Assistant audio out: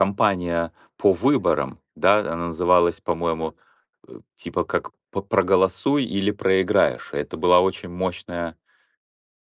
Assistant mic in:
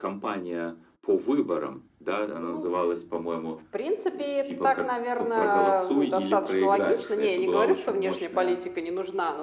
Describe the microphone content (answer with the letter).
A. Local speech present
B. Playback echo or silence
A